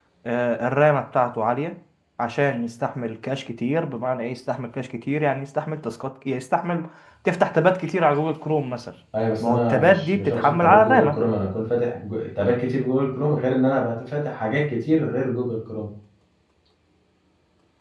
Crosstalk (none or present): present